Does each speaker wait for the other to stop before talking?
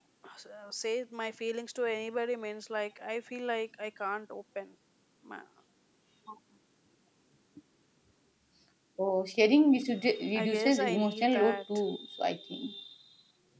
No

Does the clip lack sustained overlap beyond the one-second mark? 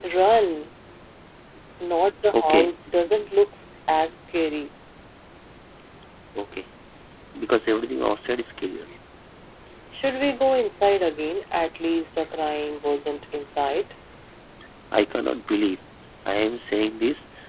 Yes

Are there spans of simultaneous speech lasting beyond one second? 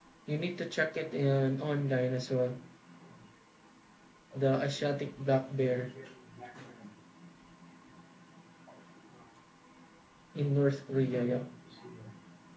No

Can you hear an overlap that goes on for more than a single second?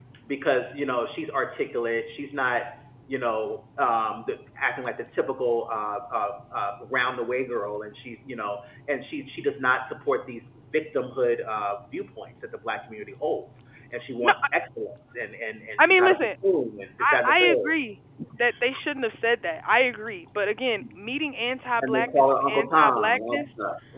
Yes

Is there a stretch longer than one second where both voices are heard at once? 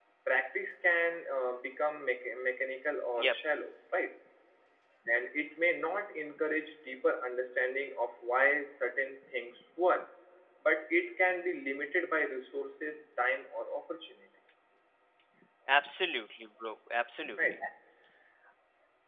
No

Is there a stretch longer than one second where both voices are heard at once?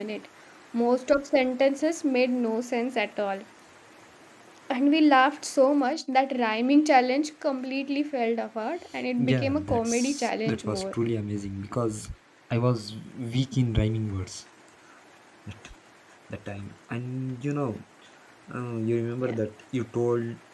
Yes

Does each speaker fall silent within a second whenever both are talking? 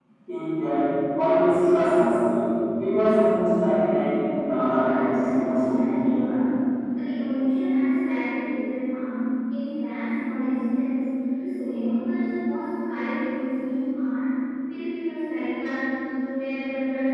No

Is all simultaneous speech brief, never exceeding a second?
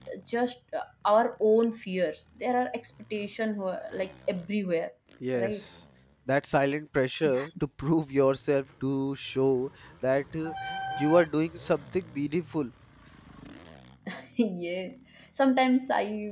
Yes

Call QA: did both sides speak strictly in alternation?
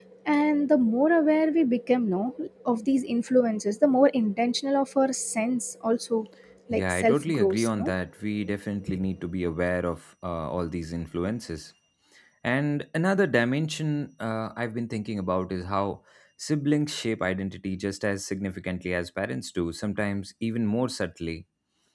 No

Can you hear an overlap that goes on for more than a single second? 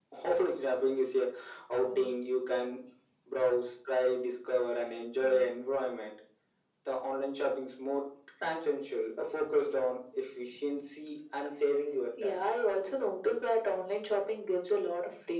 No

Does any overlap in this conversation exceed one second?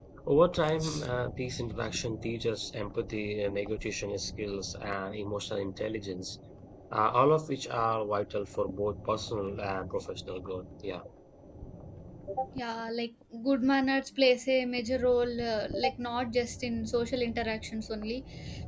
No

